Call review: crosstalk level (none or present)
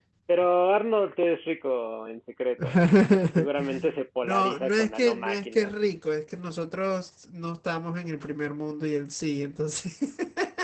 present